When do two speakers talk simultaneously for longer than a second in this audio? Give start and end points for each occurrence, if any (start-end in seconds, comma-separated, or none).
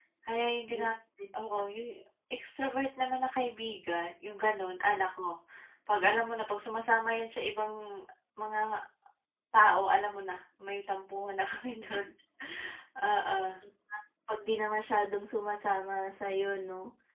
none